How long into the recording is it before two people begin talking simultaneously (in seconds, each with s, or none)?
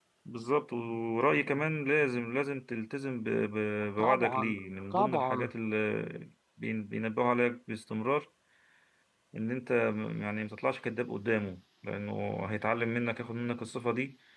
4.0 s